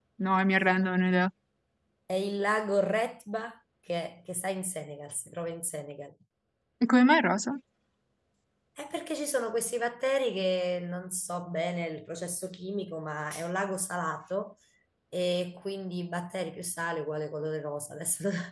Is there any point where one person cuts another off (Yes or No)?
No